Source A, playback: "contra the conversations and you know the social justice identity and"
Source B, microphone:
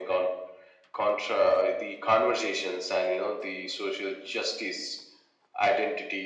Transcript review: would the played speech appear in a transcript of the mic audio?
Yes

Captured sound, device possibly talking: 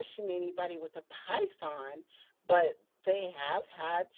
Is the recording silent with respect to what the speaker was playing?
Yes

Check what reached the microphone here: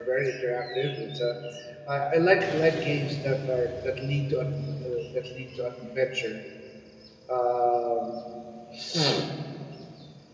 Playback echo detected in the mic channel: No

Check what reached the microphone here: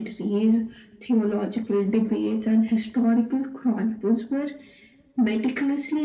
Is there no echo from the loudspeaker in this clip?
No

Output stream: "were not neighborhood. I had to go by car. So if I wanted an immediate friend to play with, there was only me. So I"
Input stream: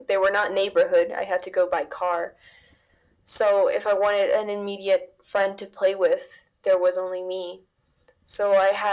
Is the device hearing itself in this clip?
Yes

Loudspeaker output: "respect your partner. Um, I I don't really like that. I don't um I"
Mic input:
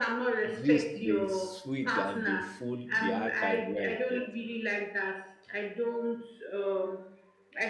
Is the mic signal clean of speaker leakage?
No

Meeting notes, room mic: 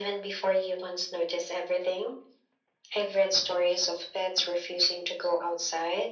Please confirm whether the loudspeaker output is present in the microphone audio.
Yes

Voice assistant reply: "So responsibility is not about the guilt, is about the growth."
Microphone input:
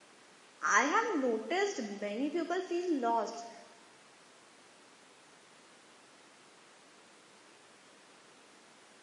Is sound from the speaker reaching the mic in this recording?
No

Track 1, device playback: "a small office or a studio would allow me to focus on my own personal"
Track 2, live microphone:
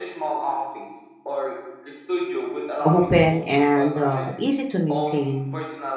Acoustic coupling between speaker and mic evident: Yes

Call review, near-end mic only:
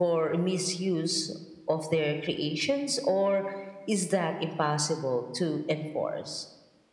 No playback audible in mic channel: No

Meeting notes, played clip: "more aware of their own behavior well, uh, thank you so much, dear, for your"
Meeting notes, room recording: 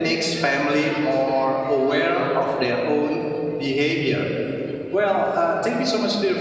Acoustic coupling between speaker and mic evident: Yes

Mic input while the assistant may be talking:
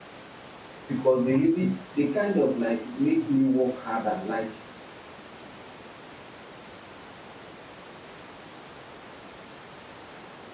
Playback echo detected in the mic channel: No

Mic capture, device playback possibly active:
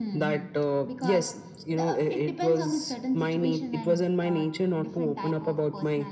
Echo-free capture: No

